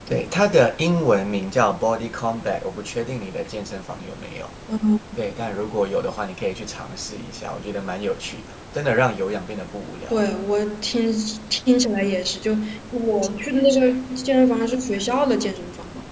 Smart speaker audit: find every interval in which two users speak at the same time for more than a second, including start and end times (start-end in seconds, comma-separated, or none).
none